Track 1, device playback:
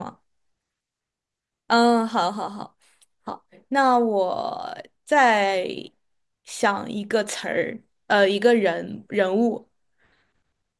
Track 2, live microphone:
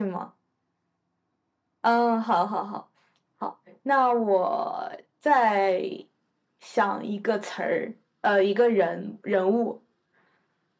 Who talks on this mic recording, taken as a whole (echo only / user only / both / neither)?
echo only